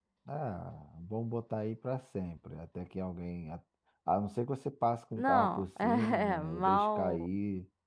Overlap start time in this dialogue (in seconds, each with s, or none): 5.1 s